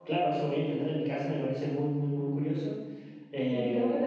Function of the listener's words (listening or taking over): taking over